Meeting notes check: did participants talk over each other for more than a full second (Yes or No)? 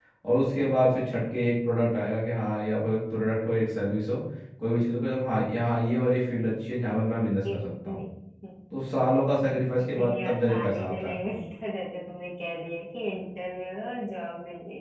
Yes